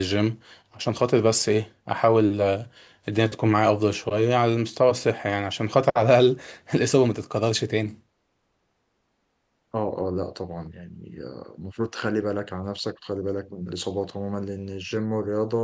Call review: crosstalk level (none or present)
none